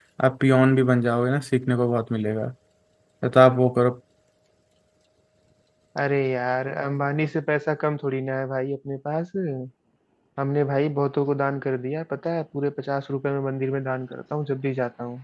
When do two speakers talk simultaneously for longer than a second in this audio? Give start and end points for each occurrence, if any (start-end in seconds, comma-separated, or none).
none